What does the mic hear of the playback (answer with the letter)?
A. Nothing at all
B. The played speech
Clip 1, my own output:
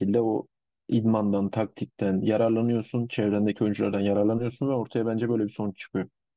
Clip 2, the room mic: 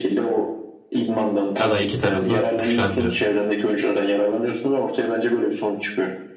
B